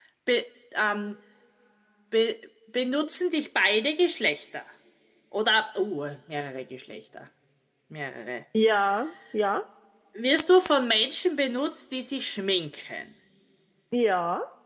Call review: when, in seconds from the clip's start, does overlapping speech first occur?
none

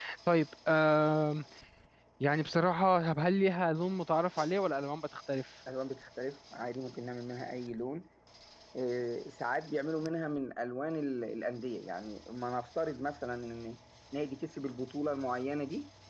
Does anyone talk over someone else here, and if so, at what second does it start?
none

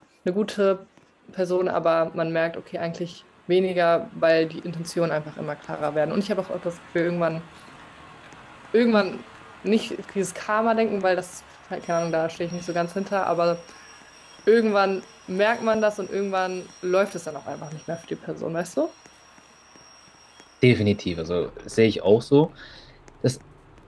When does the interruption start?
none

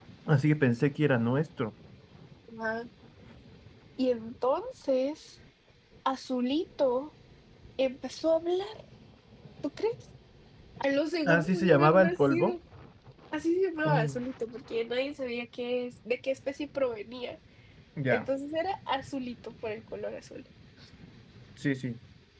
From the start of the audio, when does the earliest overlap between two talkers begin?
11.3 s

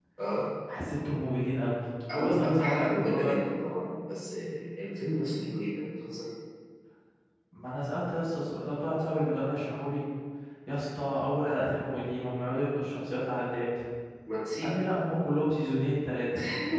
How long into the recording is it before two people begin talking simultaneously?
2.1 s

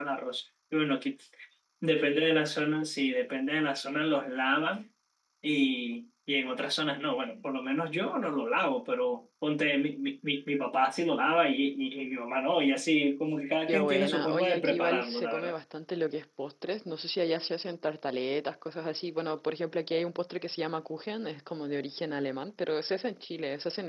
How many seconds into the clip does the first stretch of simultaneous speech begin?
13.7 s

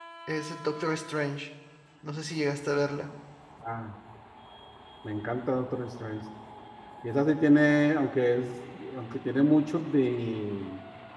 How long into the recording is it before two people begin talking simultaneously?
none

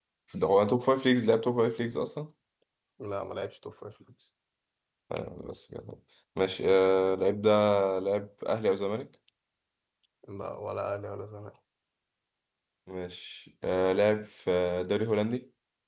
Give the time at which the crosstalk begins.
none

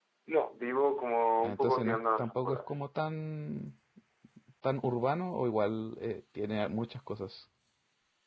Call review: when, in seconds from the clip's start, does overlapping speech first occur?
1.4 s

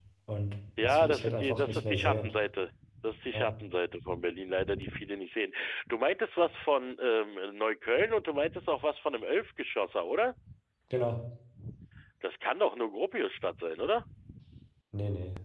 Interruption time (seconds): 0.8 s

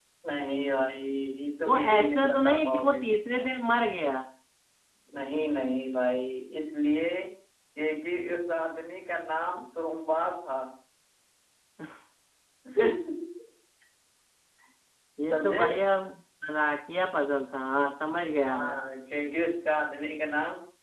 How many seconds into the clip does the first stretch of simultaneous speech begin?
1.6 s

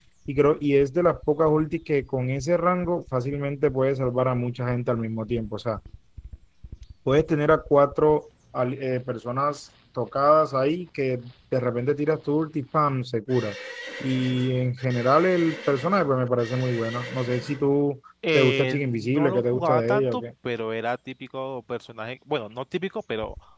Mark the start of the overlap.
18.2 s

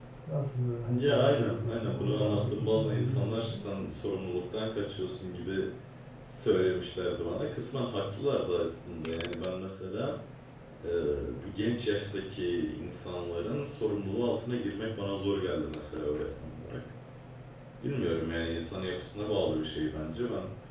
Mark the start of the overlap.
0.8 s

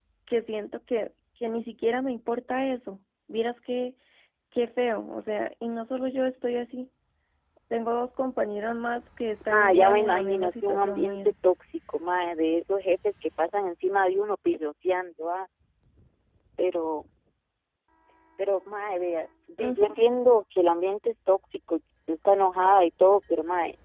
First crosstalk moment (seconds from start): 9.5 s

